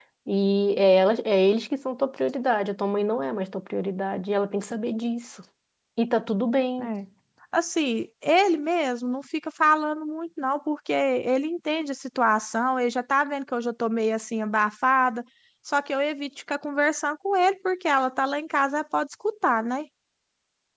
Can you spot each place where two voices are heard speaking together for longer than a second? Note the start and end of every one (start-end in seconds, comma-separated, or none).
none